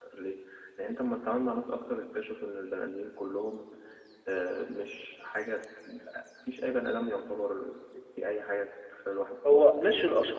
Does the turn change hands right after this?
Yes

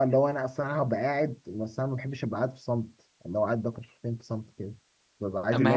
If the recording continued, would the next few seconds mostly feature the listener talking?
No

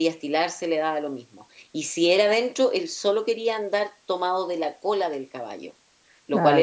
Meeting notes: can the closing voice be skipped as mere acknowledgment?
Yes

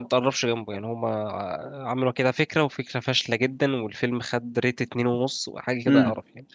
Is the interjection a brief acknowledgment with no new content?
No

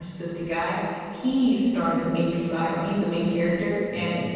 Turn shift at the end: No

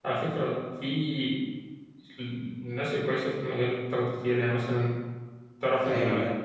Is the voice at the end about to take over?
No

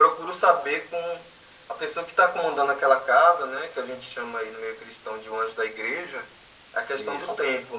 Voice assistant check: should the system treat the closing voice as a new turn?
No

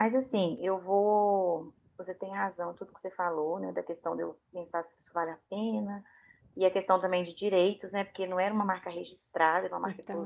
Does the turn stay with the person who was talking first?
No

